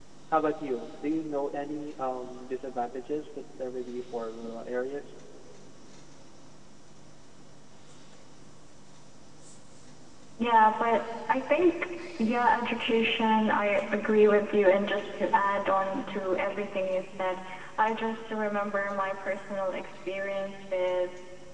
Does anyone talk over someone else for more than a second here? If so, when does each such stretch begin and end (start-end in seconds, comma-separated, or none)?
none